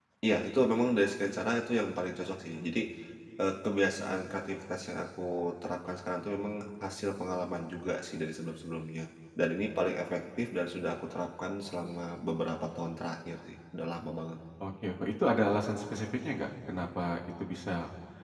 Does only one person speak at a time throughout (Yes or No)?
Yes